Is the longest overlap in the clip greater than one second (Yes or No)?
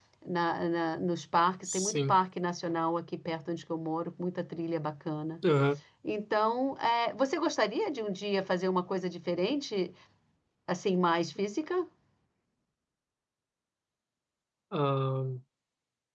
No